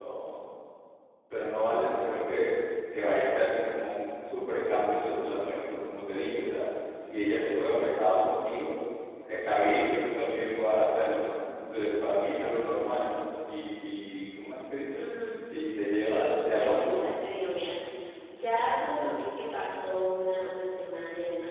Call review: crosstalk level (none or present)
present